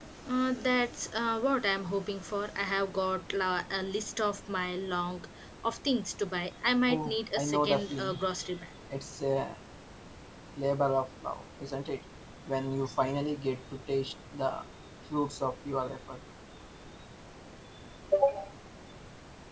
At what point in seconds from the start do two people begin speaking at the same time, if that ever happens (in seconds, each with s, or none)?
6.9 s